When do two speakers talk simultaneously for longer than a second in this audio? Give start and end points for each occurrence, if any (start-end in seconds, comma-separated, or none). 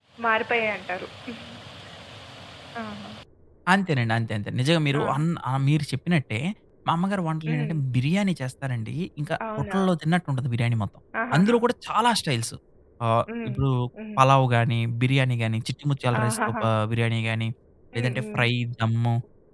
none